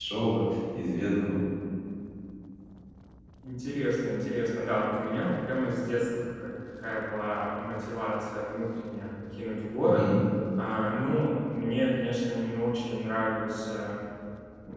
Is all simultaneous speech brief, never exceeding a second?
Yes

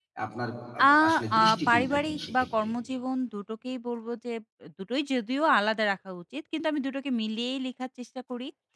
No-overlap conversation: No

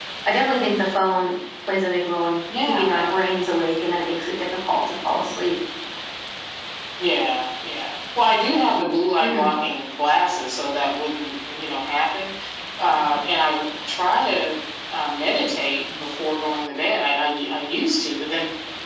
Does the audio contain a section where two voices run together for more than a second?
No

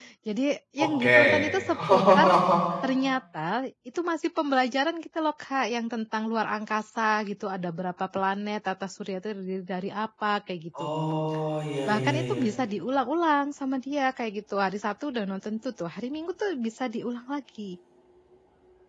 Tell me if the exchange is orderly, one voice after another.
No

